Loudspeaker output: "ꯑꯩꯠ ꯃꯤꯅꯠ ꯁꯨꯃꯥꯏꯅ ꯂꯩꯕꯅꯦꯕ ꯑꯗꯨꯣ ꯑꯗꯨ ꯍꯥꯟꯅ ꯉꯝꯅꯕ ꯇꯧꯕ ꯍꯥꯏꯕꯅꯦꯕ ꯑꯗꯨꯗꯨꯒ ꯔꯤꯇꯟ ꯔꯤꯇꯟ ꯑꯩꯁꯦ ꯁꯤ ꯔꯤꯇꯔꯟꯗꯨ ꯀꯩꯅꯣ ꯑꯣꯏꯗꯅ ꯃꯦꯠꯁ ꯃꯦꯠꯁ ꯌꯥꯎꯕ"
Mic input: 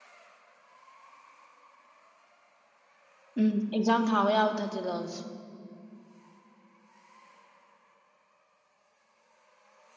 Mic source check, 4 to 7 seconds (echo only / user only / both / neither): user only